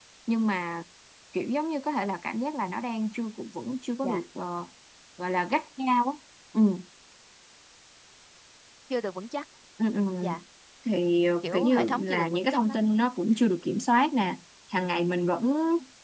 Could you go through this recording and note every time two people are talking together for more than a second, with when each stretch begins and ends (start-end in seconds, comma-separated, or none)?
11.4-12.8